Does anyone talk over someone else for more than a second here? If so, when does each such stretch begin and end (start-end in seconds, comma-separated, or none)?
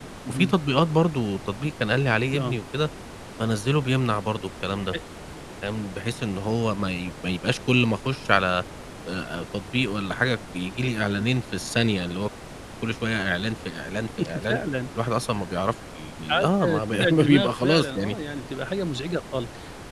16.3-18.2